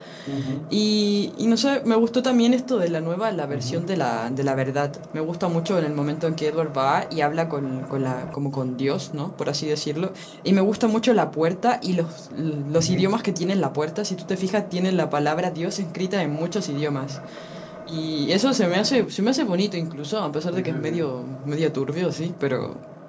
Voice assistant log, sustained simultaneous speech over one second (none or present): none